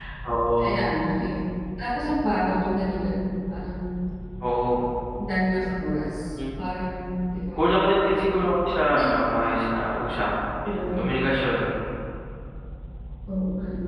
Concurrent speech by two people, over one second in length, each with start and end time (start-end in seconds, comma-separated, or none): none